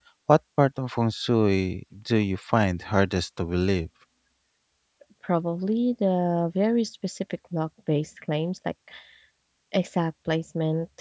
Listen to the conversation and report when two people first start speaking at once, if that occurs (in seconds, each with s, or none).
none